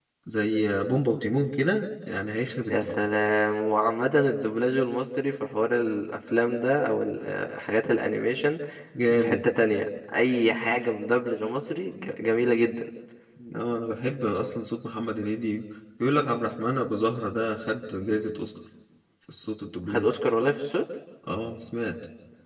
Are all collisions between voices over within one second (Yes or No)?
Yes